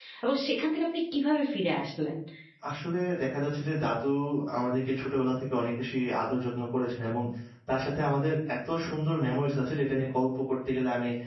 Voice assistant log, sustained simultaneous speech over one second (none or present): none